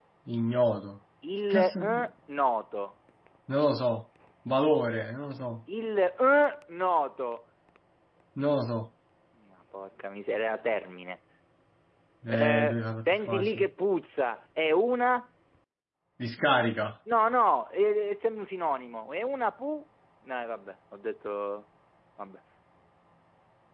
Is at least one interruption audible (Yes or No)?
Yes